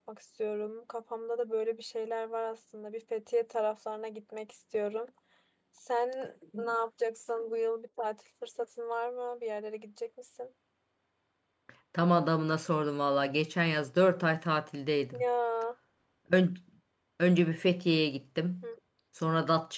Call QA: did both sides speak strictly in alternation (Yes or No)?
Yes